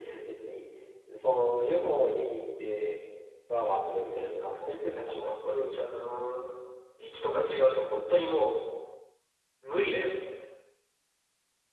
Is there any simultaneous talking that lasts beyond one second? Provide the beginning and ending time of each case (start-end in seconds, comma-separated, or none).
4.1-5.3